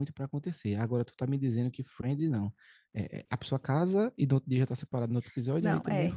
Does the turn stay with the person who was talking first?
No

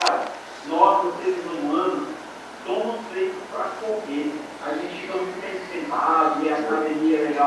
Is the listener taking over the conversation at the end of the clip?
No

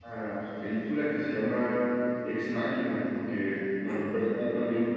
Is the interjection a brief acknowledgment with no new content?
Yes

